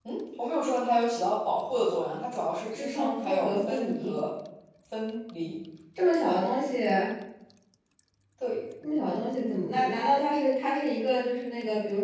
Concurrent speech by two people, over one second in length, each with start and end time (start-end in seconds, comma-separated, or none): 2.7-4.2